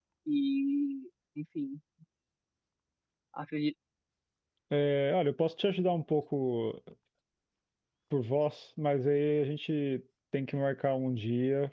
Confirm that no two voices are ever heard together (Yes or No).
Yes